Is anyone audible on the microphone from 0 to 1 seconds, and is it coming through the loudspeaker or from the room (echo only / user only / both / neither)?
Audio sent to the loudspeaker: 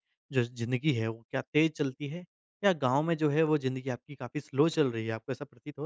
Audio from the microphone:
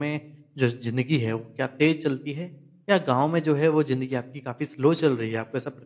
echo only